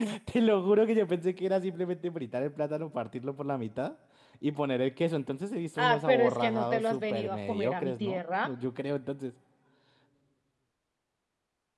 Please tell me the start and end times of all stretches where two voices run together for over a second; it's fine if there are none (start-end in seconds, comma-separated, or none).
5.8-8.5